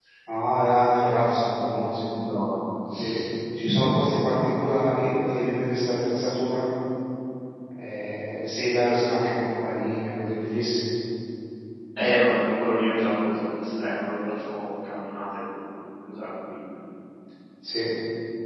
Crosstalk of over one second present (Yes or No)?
No